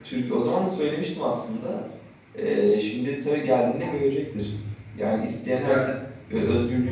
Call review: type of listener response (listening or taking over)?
listening